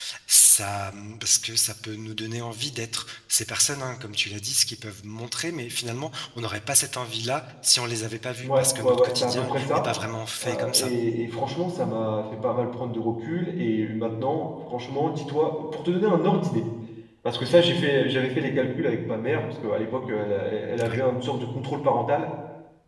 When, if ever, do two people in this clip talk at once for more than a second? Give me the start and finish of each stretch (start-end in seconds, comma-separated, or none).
8.4-9.8